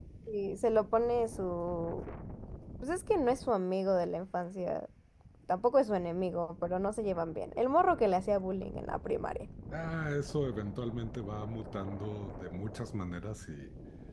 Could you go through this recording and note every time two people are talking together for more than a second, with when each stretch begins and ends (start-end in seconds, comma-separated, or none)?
none